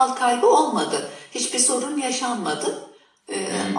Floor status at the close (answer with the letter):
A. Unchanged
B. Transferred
B